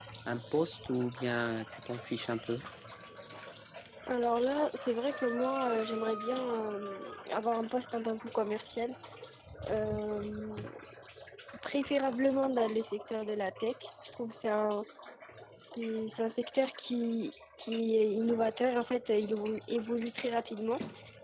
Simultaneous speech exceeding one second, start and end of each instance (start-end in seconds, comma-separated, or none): none